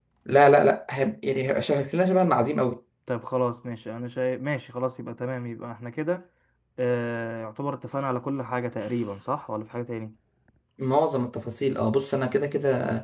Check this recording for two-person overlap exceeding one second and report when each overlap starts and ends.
none

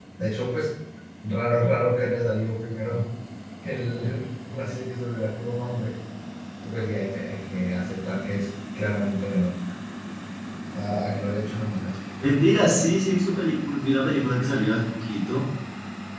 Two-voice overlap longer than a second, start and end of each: none

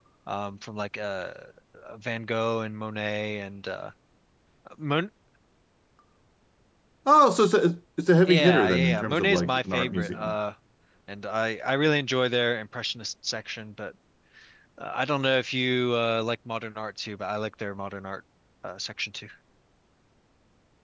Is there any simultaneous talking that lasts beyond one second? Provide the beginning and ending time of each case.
8.3-10.3

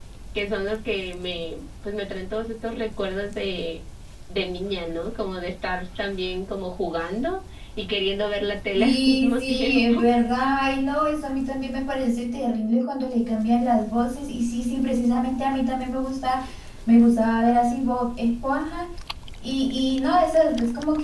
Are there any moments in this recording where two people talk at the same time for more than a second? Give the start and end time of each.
8.8-10.0

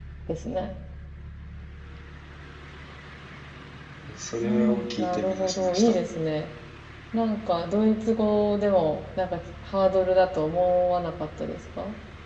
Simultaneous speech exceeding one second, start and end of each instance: 4.4-5.9

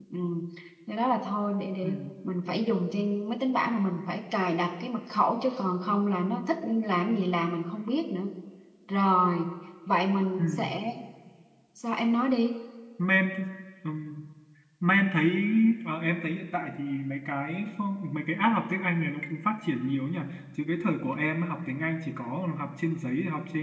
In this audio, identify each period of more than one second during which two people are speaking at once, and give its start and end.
none

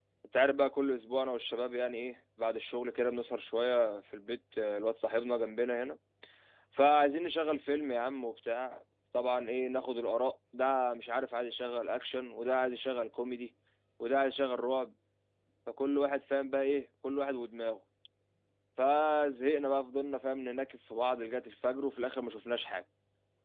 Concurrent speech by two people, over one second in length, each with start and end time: none

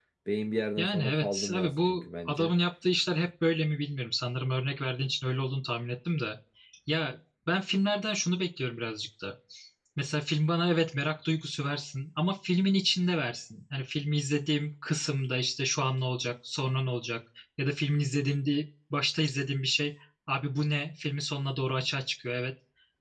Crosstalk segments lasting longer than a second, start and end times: 0.8-2.5

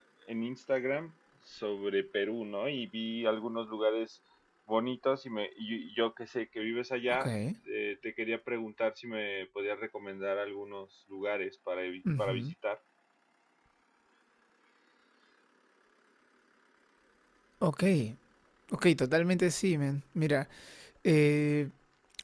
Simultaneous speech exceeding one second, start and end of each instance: none

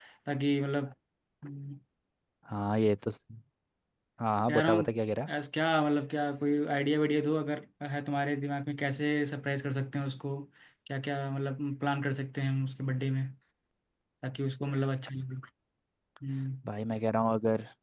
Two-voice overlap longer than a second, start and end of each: none

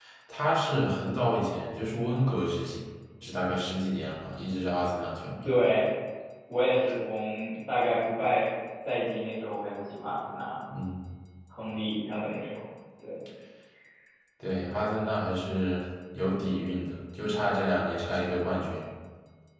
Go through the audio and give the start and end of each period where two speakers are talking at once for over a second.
none

